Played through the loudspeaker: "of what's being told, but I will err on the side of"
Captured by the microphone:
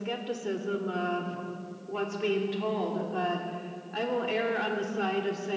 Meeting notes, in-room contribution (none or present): none